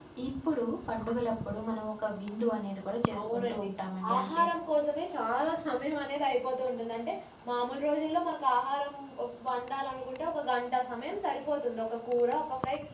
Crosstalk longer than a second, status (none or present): none